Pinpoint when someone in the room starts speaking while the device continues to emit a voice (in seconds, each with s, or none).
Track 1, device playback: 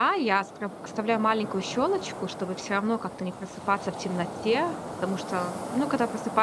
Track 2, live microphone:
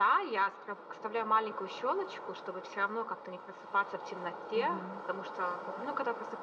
4.5 s